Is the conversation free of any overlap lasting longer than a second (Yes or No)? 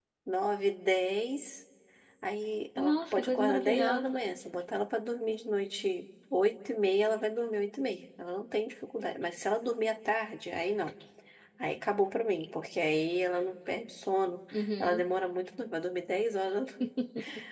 No